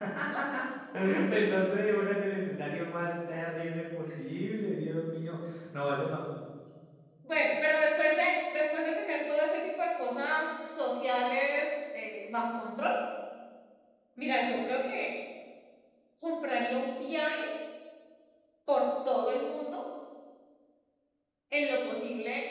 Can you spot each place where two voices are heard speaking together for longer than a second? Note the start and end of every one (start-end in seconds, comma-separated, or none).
none